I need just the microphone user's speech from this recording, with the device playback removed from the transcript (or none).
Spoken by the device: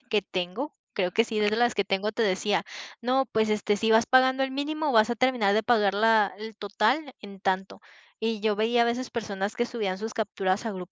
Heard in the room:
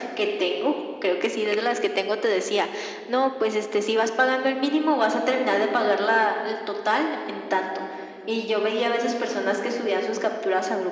none